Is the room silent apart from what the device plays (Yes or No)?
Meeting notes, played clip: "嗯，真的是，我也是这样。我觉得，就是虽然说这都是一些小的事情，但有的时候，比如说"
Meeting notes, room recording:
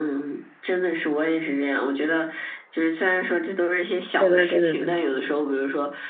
No